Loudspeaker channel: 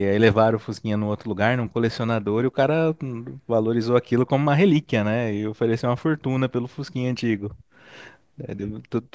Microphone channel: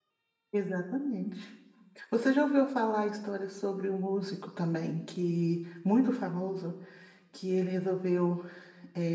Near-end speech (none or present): present